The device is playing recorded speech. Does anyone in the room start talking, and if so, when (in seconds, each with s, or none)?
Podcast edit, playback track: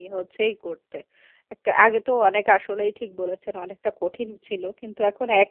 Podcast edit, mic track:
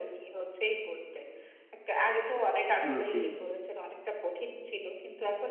2.9 s